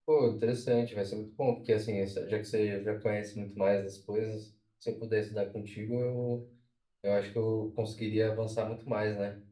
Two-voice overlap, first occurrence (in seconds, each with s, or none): none